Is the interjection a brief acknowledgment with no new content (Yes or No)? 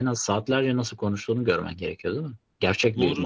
No